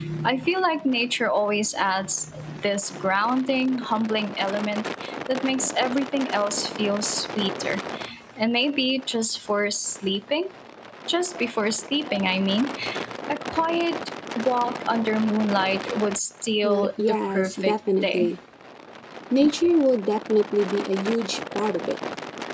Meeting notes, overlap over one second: present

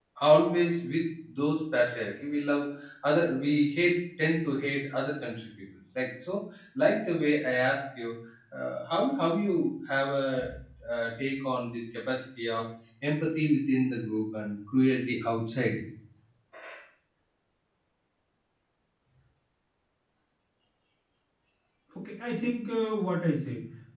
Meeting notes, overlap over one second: none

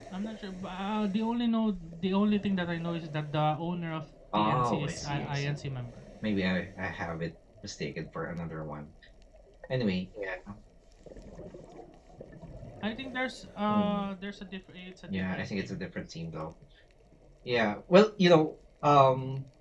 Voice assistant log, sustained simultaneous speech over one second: present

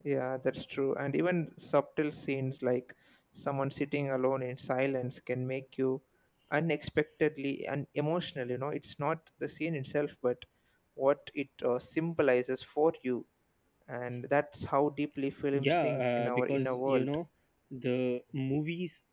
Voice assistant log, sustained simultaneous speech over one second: present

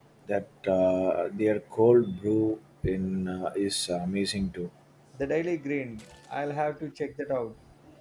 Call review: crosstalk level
none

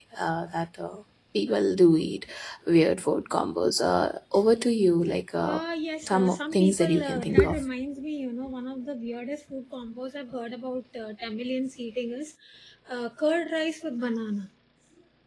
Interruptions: present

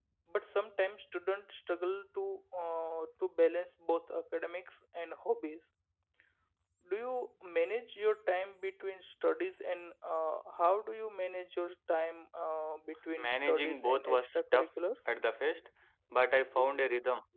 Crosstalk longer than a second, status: present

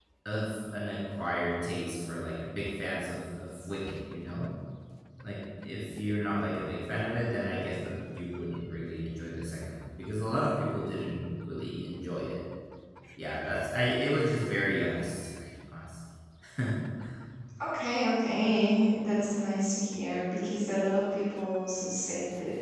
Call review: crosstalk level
none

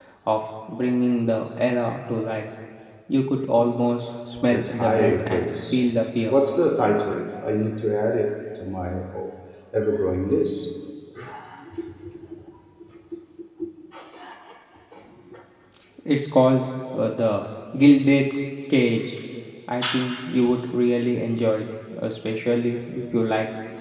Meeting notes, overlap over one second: present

